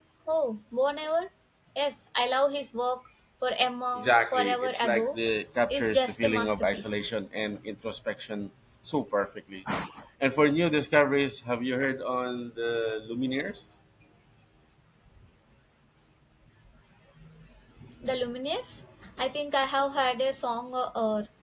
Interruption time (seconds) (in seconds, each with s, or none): 4.0 s